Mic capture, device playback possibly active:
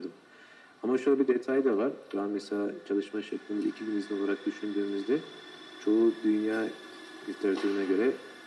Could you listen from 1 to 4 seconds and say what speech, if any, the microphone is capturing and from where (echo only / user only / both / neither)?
echo only